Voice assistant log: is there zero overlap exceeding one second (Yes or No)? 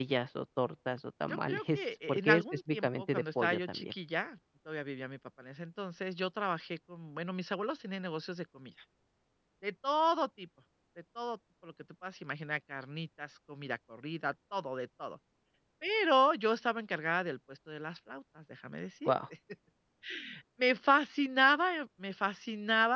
No